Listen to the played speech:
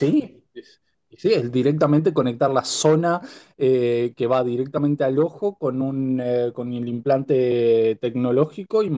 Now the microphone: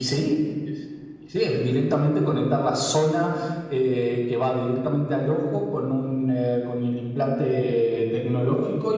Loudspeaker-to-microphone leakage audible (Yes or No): Yes